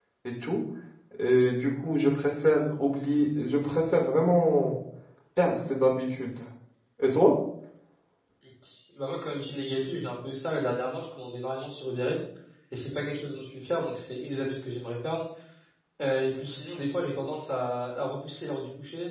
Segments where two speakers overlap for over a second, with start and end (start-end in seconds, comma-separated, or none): none